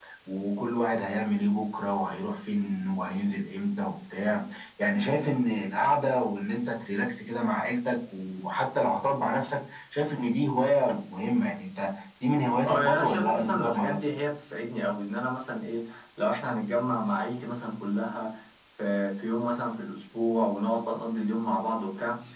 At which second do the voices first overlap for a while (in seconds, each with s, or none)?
12.7 s